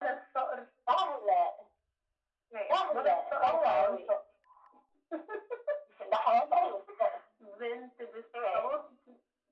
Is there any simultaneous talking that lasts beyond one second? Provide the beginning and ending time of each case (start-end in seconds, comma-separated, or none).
2.7-4.2